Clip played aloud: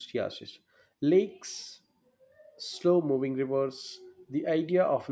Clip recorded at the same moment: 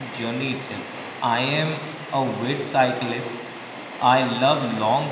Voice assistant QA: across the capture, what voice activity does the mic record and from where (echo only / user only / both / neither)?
user only